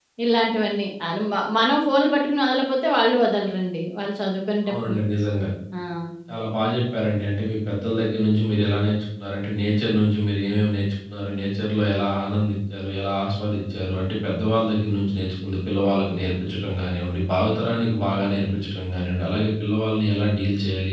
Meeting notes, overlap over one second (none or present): none